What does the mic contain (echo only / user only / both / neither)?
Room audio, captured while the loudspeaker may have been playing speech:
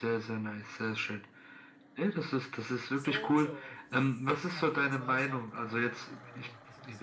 both